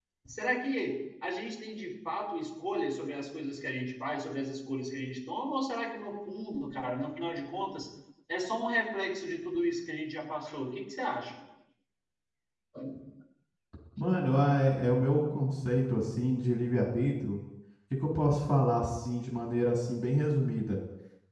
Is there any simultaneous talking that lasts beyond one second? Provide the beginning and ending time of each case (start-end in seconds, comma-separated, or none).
none